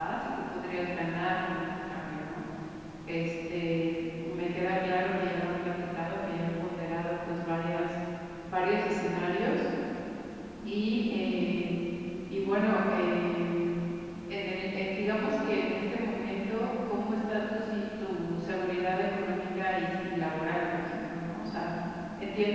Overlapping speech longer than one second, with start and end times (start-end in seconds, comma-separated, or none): none